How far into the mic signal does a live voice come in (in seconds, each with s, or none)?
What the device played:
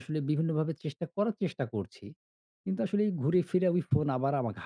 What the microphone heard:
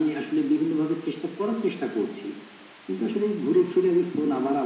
none